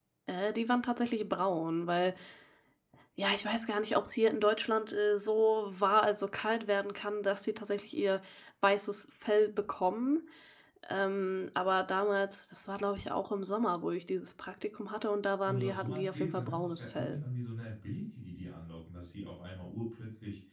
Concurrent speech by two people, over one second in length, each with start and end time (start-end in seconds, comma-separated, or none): 15.4-17.2